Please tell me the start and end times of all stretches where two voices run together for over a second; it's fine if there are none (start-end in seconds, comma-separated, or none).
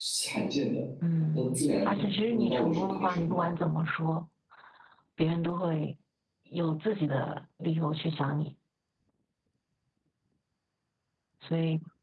1.3-3.4